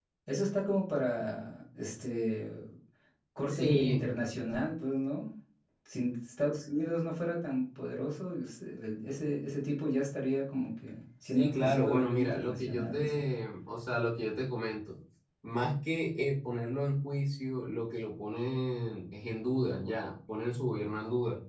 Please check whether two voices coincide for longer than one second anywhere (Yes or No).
Yes